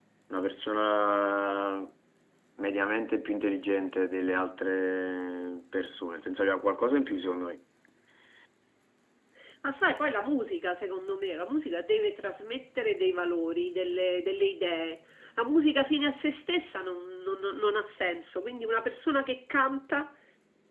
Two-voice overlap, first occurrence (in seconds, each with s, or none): none